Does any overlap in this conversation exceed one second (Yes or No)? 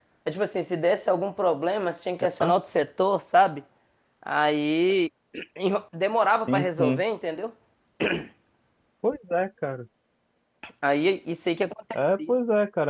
No